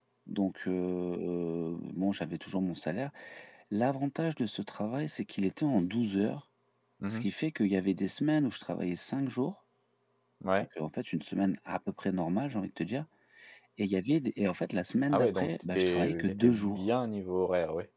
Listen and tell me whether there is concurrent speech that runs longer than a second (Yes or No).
Yes